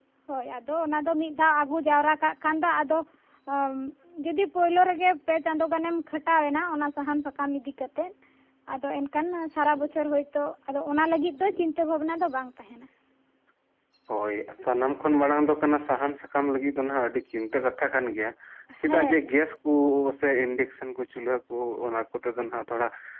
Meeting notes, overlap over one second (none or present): none